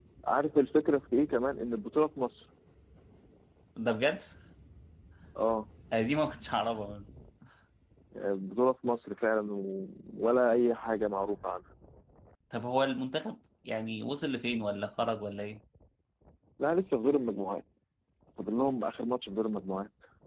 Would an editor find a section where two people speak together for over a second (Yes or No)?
No